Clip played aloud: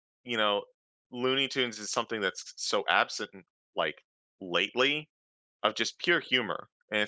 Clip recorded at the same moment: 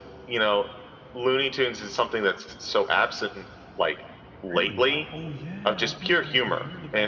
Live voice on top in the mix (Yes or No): No